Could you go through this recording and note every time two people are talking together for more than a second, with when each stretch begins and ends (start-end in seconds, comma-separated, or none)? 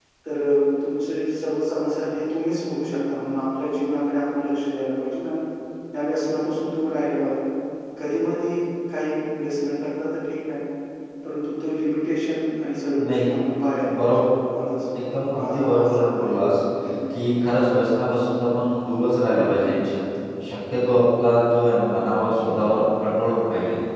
15.0-16.3